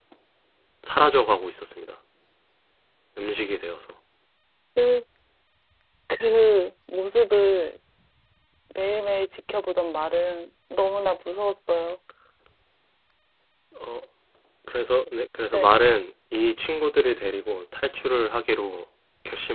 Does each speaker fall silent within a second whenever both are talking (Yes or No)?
Yes